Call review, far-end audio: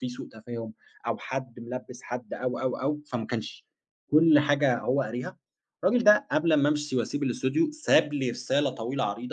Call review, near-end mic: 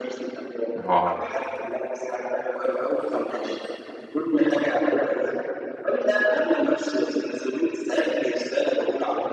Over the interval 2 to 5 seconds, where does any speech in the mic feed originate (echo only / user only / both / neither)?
echo only